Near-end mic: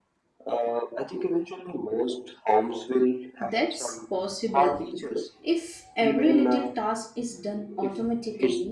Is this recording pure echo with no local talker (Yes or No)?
No